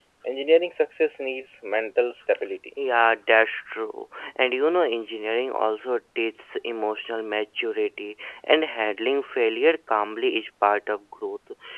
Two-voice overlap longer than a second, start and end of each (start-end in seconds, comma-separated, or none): none